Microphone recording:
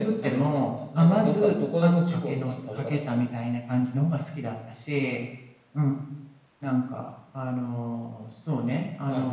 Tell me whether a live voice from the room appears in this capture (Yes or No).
No